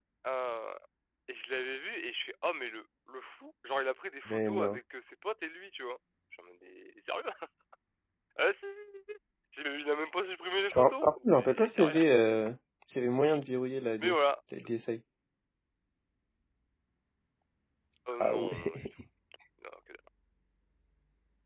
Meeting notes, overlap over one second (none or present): present